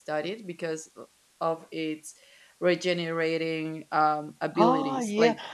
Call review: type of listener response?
taking over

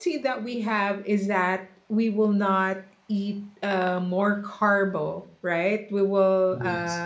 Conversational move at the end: listening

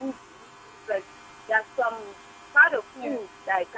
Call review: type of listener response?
listening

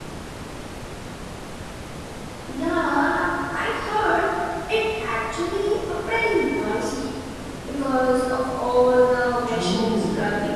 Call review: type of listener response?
taking over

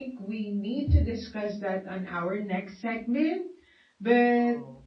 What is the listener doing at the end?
listening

